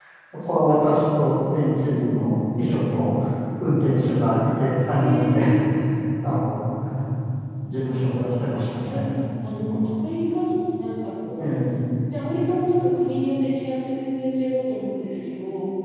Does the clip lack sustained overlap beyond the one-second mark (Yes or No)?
Yes